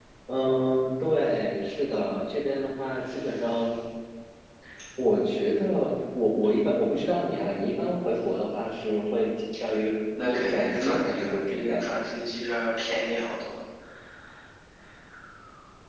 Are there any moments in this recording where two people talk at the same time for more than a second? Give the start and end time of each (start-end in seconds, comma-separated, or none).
10.2-11.8